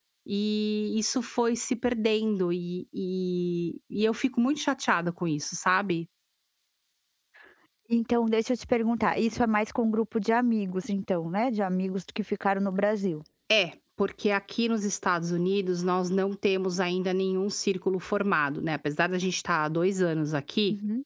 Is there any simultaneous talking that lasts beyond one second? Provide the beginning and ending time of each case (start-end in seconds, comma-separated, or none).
none